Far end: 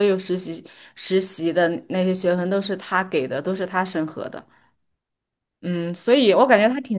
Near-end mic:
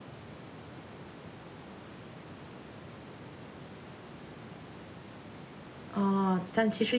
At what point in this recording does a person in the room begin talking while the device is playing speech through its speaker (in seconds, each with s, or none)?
5.9 s